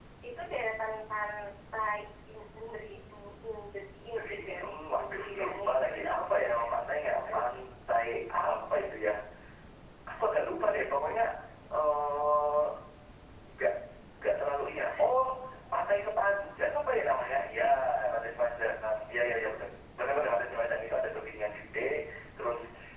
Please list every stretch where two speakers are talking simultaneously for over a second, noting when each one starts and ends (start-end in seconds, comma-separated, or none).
4.2-6.7